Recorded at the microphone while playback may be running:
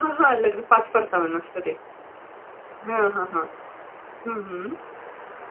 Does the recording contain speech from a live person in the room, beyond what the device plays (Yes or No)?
Yes